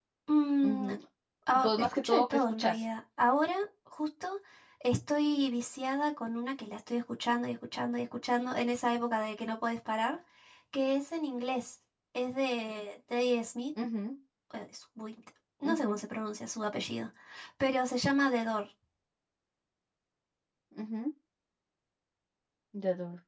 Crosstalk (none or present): present